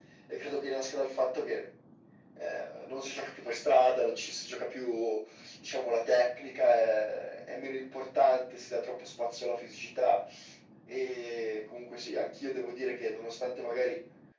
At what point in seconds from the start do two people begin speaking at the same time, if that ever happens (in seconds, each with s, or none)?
none